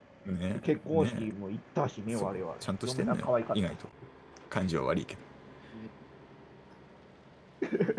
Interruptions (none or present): present